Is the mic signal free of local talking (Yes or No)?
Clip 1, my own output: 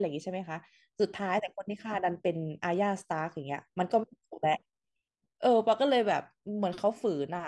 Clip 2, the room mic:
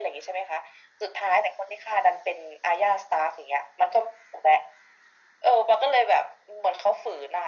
Yes